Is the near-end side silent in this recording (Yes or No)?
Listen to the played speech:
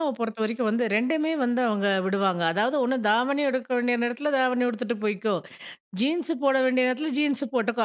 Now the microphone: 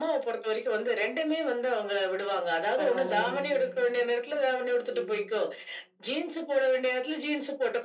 No